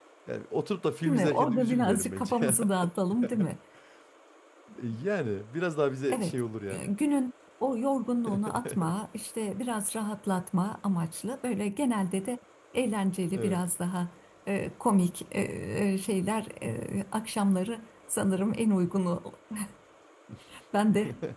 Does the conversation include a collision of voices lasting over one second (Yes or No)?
Yes